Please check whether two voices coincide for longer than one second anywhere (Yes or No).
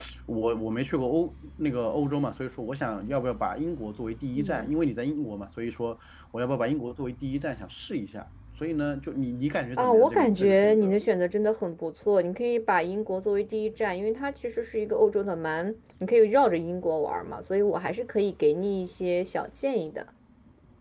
Yes